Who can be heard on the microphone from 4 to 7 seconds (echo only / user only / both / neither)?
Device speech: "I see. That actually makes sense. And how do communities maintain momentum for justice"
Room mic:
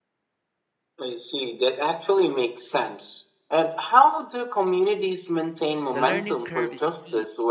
both